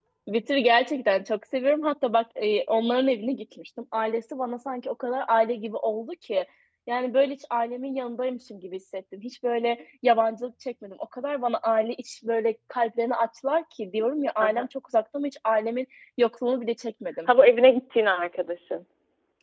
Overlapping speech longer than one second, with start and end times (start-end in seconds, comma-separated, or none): none